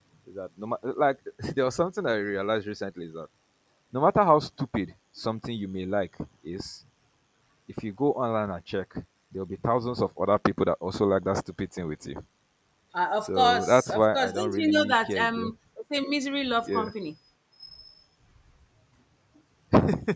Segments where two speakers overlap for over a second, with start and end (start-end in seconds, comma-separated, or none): 13.2-15.5